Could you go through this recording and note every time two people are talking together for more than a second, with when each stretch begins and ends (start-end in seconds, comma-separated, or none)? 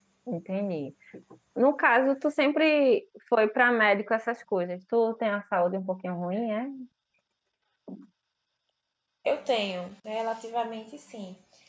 none